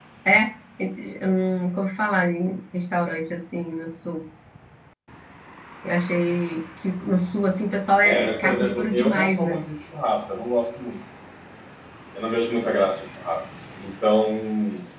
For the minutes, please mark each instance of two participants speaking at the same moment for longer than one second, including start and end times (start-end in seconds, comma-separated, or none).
8.0-9.5